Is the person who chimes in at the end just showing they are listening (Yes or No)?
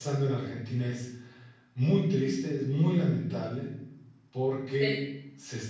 Yes